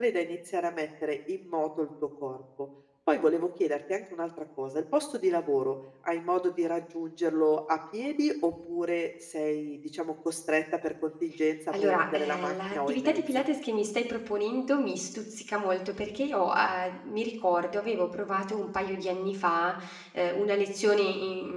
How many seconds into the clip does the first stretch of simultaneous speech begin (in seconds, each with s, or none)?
11.7 s